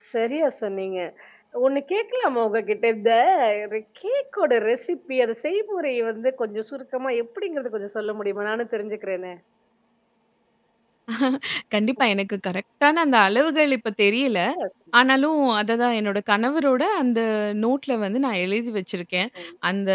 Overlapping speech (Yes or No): No